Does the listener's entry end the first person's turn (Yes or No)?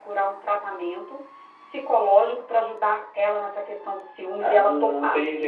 Yes